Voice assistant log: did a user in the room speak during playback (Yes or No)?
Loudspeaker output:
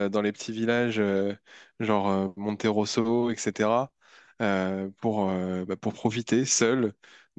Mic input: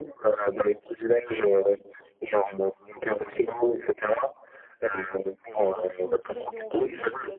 Yes